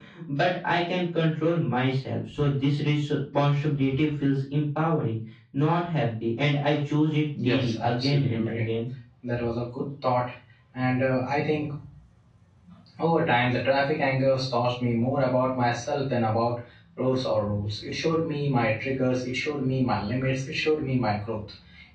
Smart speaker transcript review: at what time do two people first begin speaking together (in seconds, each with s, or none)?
7.3 s